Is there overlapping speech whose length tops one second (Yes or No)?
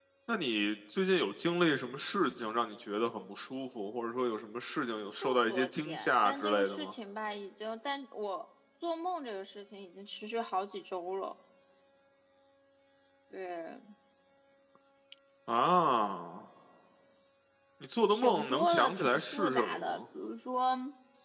Yes